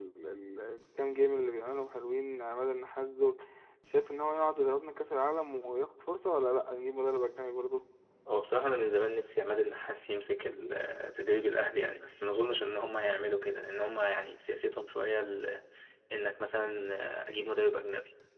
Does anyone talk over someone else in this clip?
No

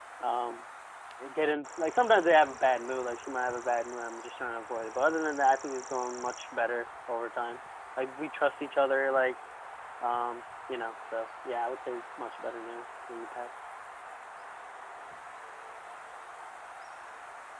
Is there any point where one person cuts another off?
No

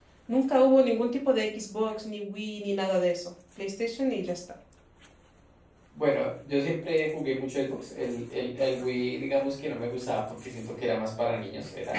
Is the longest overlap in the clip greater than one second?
No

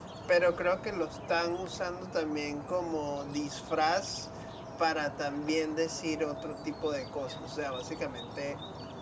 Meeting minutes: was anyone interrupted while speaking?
No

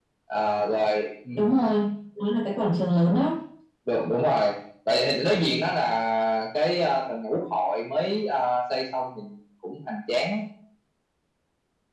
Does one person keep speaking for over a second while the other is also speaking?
No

